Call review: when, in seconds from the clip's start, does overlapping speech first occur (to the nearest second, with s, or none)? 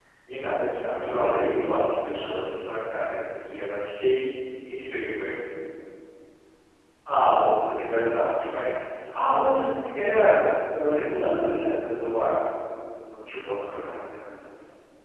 1 s